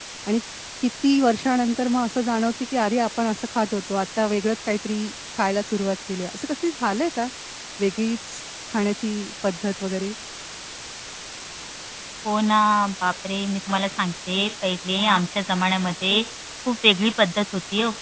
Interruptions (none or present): none